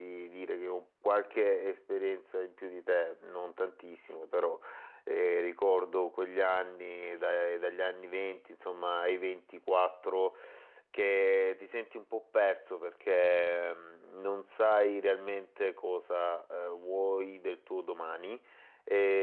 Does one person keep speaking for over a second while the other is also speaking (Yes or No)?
No